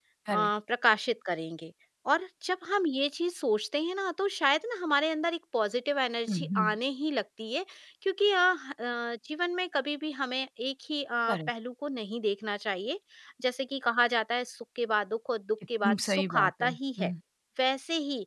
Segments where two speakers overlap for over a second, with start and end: 15.8-17.1

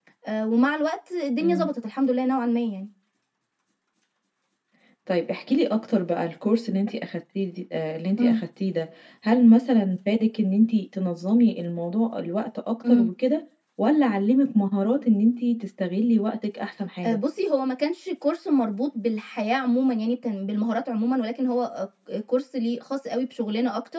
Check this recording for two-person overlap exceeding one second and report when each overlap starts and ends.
none

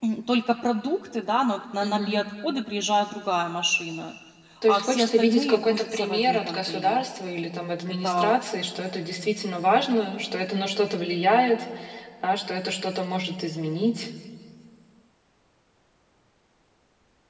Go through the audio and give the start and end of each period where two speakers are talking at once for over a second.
4.7-7.0

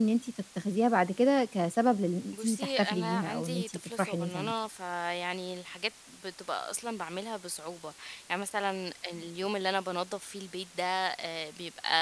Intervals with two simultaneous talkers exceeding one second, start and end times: 2.3-4.5

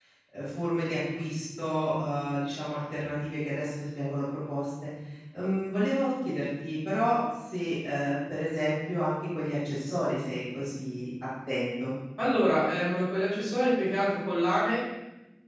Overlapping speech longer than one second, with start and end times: none

